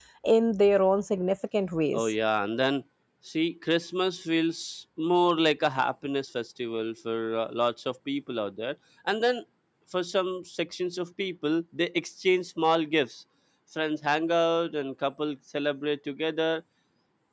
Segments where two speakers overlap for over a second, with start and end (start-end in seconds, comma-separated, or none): none